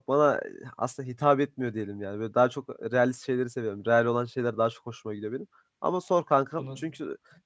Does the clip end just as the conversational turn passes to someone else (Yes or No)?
No